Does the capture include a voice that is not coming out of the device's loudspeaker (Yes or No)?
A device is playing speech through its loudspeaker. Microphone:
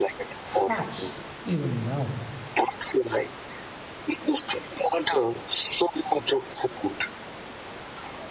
Yes